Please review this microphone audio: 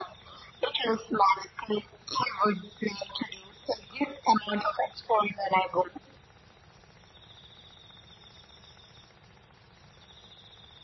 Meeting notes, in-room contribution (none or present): none